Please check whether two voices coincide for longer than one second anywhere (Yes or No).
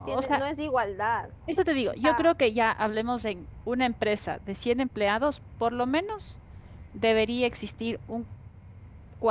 No